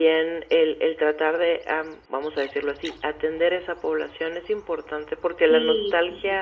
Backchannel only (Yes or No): Yes